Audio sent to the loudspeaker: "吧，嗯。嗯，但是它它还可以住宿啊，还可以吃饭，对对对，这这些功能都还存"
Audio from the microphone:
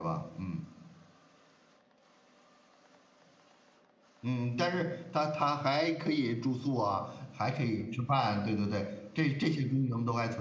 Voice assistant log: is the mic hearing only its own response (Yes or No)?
Yes